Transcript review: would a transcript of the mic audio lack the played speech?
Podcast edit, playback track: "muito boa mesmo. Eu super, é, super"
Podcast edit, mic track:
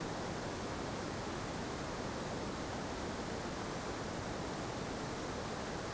Yes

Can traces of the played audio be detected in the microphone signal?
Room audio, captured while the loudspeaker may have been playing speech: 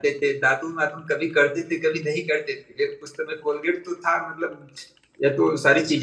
No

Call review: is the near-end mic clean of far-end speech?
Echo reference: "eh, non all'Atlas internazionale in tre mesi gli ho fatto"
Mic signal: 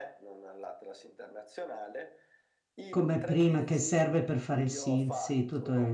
No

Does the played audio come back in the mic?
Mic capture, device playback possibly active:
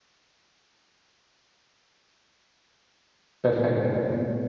No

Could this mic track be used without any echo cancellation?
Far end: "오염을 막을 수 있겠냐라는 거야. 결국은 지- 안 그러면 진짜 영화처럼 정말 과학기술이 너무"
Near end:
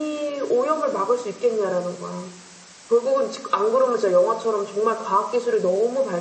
No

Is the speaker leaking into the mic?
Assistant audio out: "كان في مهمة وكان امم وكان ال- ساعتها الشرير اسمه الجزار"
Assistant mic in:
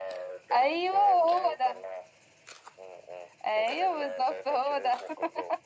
Yes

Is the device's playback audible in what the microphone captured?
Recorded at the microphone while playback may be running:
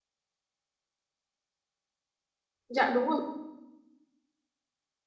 No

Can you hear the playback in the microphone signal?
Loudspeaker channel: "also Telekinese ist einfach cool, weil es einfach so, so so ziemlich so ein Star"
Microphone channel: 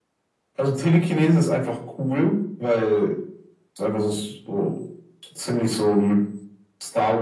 Yes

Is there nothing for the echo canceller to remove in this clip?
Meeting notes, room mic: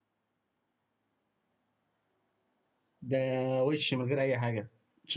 Yes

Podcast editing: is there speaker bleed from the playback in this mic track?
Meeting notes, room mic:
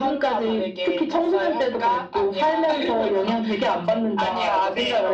Yes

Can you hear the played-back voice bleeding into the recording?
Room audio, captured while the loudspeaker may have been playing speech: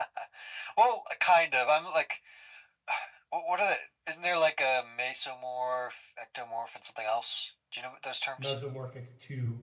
Yes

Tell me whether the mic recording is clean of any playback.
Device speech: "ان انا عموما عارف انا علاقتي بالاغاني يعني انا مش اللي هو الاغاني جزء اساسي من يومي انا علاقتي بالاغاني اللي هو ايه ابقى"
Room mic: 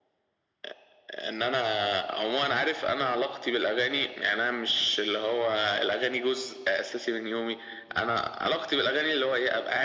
No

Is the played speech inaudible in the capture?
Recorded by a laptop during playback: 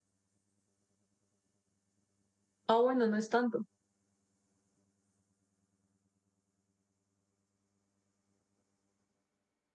Yes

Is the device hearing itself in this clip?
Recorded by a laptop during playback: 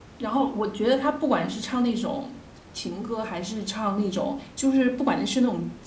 Yes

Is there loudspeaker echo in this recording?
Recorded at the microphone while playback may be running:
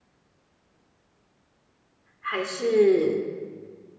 No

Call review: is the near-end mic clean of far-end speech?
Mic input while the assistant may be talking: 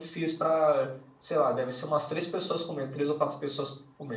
No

